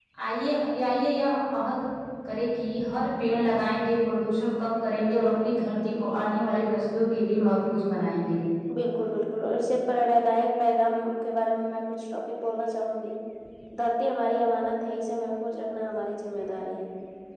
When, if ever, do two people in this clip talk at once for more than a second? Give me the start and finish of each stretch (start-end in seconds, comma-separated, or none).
none